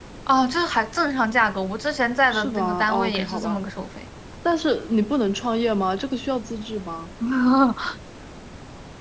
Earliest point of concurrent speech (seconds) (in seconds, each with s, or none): 2.3 s